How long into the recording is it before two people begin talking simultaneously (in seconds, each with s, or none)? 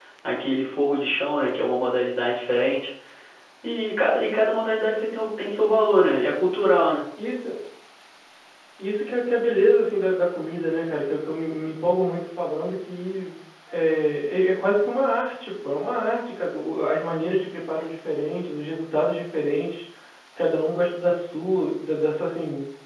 none